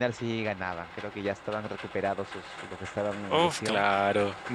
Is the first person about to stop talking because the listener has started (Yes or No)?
Yes